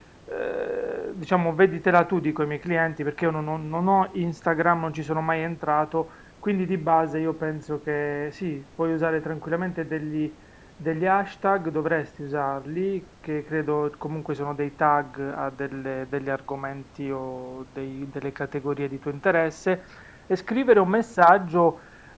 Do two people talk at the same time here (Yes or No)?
No